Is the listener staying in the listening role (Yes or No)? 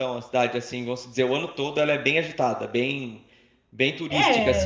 No